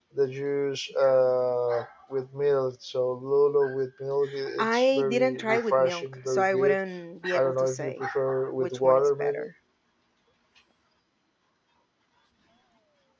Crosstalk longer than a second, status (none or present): present